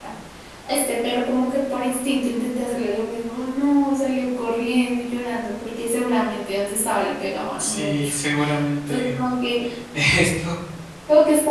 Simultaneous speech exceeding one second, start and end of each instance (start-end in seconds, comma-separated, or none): none